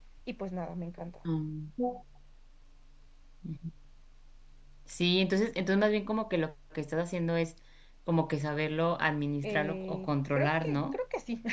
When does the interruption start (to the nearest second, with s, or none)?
9 s